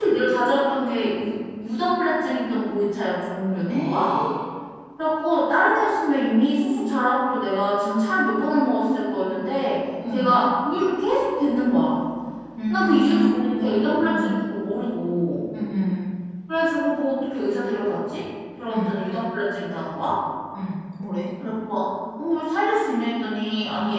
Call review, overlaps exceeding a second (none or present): present